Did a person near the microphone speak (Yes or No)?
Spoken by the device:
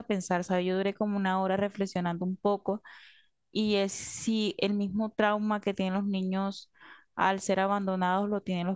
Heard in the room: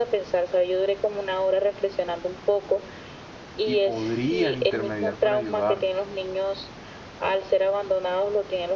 Yes